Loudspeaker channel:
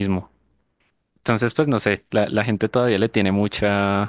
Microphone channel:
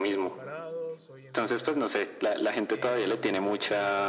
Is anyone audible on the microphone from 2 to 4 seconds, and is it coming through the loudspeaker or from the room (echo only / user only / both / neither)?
both